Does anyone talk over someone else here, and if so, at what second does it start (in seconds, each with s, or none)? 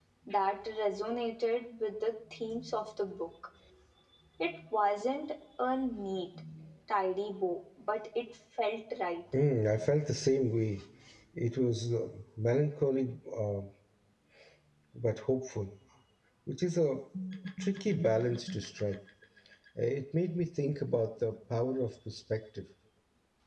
none